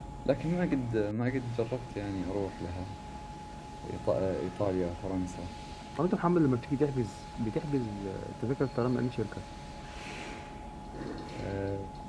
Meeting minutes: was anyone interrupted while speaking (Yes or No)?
No